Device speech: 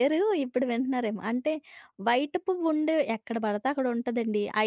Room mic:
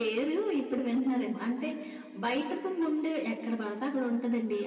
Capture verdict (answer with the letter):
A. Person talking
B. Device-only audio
B